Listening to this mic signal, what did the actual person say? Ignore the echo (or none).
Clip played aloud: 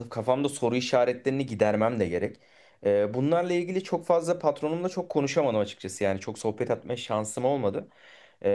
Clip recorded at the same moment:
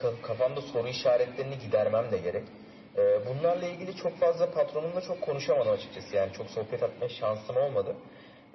none